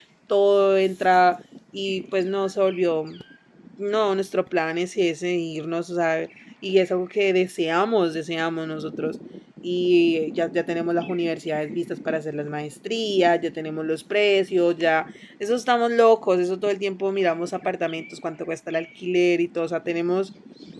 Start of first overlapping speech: none

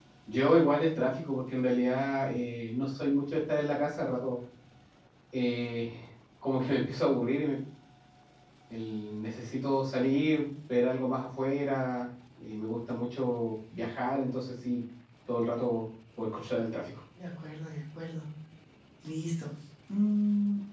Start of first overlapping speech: none

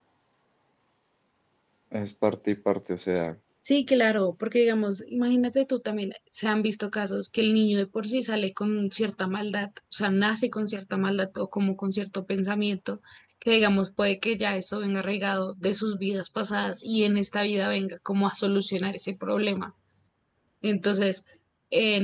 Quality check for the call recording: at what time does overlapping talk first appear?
none

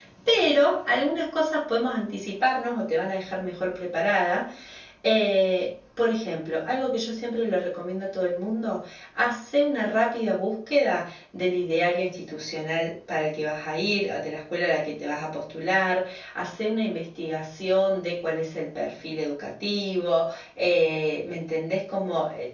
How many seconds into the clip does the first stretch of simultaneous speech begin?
none

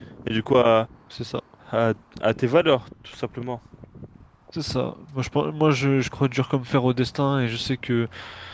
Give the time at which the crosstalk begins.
none

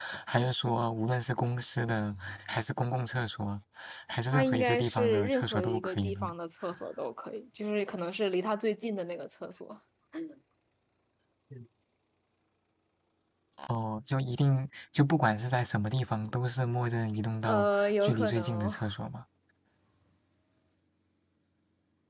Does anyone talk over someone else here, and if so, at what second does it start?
4.3 s

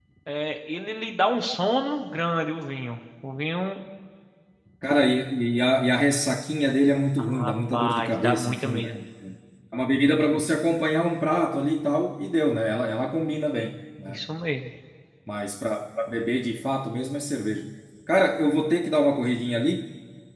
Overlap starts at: 7.2 s

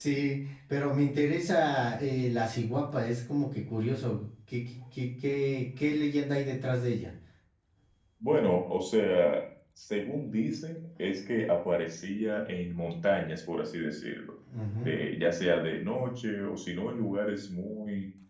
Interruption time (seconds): none

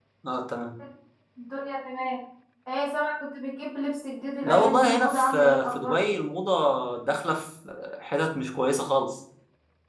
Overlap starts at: 4.4 s

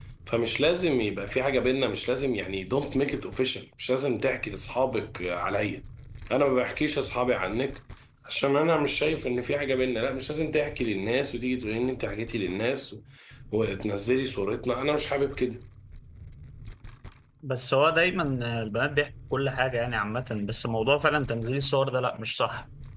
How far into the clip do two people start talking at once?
none

